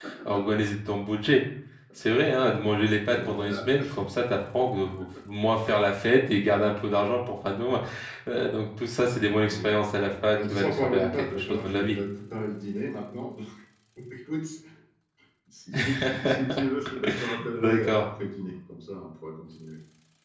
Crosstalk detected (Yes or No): Yes